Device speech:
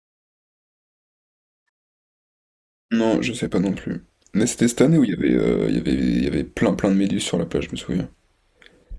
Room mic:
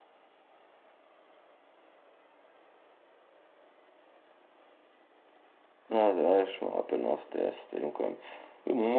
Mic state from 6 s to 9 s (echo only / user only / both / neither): user only